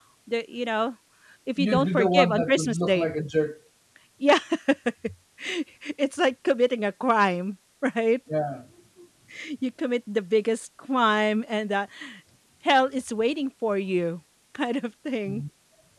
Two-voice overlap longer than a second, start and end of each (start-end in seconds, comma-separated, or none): 1.6-3.1